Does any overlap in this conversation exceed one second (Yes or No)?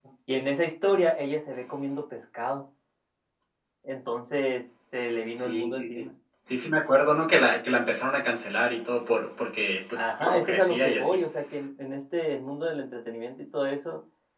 Yes